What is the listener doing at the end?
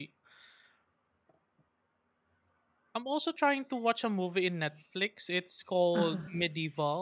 listening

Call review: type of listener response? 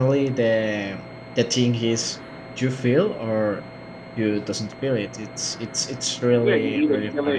taking over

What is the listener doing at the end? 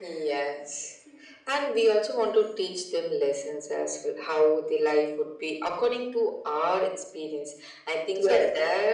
listening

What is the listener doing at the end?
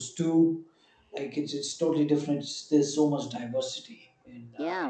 taking over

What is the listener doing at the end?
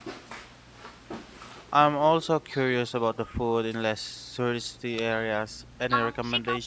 taking over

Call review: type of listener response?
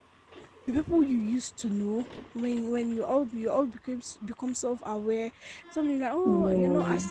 listening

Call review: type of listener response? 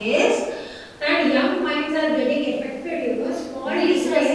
taking over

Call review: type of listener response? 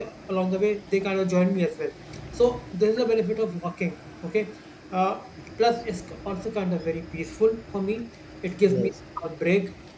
listening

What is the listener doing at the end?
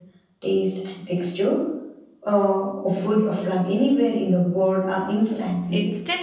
taking over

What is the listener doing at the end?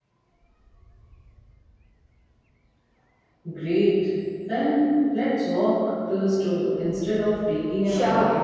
taking over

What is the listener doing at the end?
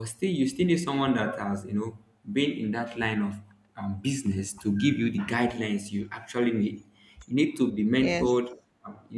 listening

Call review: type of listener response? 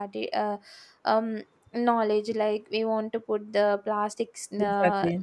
listening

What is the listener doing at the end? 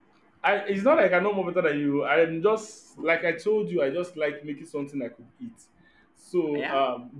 listening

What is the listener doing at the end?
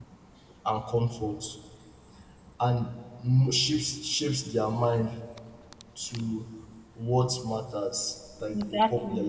listening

